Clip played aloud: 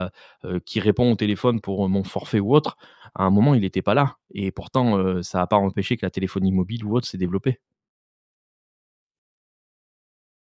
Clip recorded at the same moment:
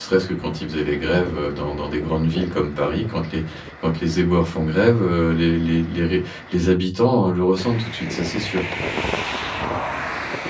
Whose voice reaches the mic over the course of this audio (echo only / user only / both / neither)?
user only